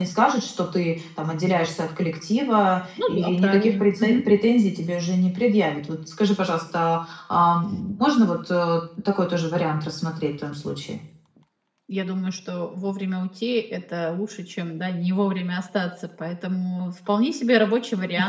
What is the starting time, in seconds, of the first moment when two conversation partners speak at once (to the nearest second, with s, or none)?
3 s